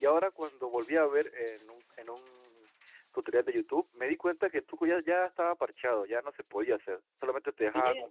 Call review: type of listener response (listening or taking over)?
listening